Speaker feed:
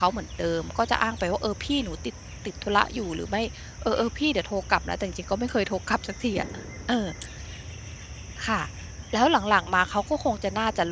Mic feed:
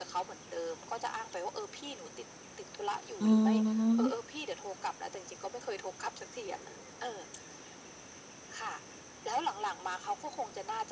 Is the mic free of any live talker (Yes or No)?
No